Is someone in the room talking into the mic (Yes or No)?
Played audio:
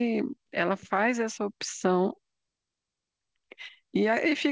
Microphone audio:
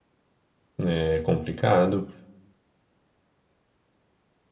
Yes